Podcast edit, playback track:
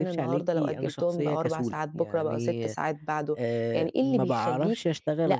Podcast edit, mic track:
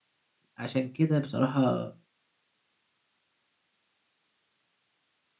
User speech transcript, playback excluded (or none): فعشان كده بصراحة